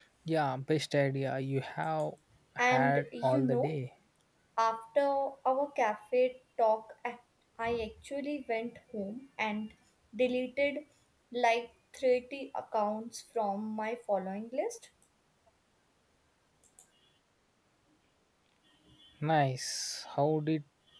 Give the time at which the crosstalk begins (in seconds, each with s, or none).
2.6 s